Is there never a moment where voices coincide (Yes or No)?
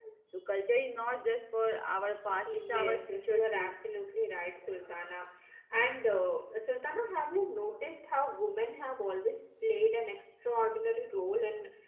No